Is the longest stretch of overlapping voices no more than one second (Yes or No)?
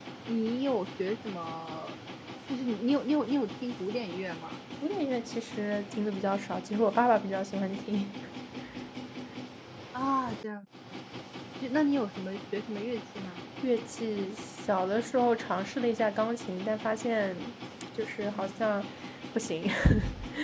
Yes